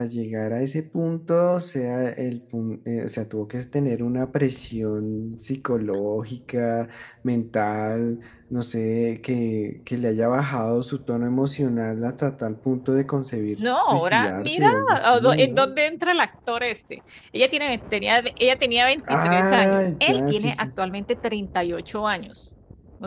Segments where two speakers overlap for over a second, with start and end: 13.6-15.7, 19.1-20.7

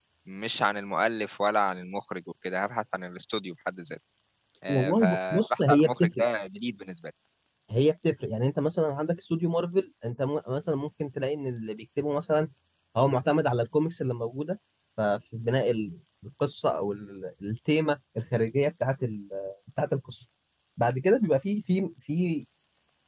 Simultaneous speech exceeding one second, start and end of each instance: 4.7-6.2

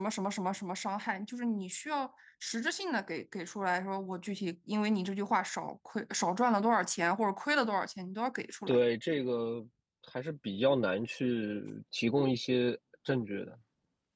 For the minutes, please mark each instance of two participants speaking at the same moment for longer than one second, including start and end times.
none

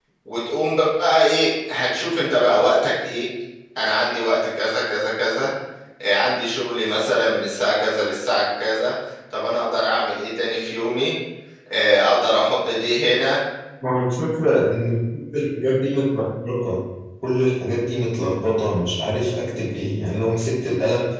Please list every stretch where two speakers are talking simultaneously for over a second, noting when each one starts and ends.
none

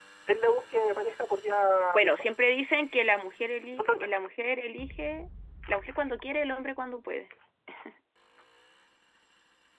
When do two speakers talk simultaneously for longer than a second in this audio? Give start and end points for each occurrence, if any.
none

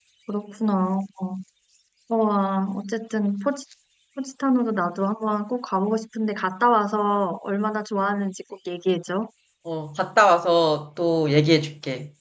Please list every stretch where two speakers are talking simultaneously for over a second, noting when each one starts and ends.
none

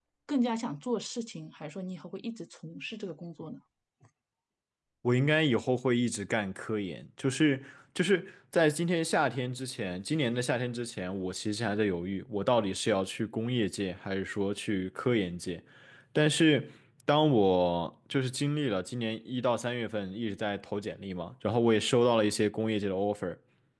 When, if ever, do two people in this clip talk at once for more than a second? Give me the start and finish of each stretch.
none

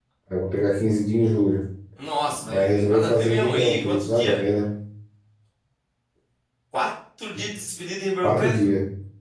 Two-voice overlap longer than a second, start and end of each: 2.4-4.4

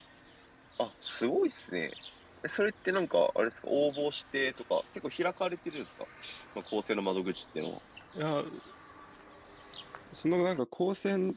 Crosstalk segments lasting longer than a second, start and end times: none

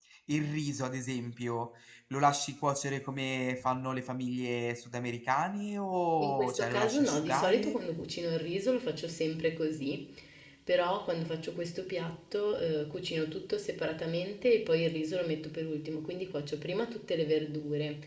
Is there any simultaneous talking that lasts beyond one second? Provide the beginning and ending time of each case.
6.2-7.8

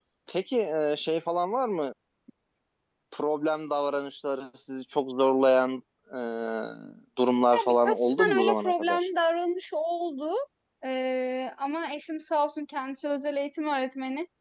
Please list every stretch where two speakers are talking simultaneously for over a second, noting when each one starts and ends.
7.5-9.1

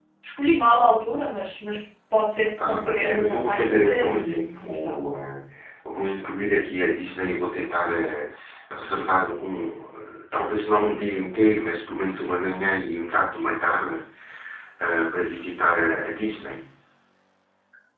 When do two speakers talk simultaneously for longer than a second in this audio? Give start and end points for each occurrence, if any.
2.7-5.0

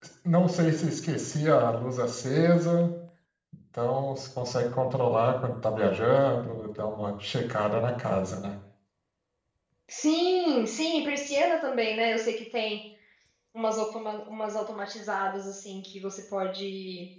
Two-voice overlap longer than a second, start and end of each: none

